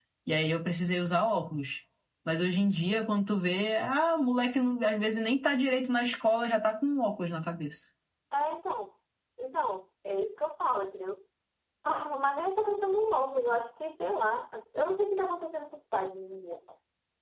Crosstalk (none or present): none